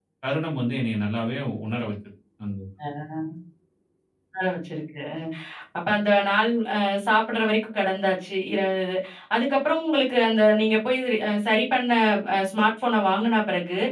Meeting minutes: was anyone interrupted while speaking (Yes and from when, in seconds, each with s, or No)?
No